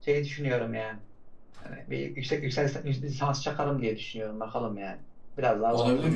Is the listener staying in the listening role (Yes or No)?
No